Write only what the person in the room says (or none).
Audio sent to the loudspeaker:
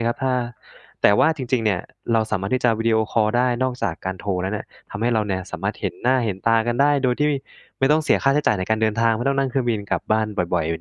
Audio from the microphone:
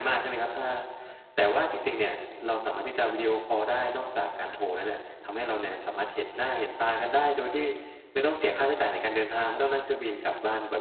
none